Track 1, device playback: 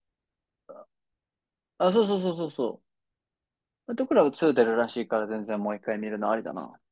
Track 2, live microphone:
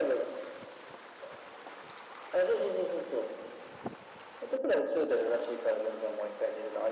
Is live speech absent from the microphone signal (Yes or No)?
Yes